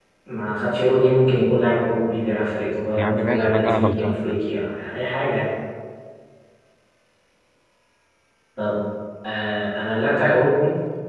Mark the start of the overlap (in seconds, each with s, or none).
3.0 s